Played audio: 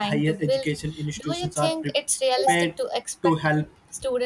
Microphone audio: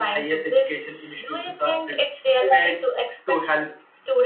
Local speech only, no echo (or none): none